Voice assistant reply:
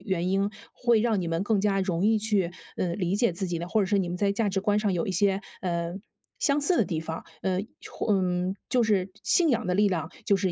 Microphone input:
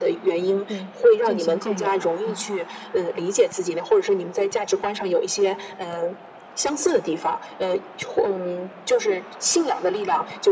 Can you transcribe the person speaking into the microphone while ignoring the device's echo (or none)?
对，渐行渐远了，嗯。